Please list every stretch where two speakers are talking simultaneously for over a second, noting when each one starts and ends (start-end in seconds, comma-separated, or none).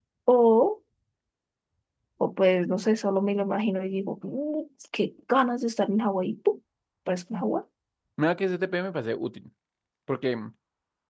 none